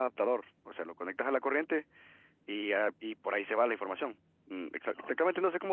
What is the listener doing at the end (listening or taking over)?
listening